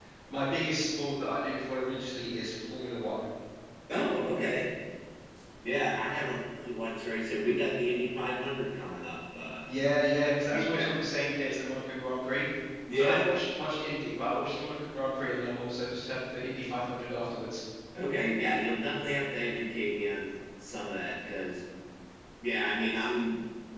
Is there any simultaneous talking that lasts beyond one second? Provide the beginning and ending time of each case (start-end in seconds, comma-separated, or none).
none